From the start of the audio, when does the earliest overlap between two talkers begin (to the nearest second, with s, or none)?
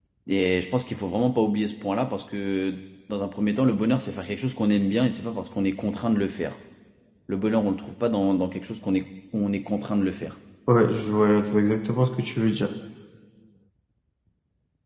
none